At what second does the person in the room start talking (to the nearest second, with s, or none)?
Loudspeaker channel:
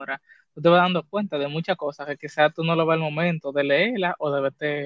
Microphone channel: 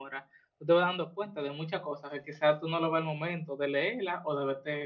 none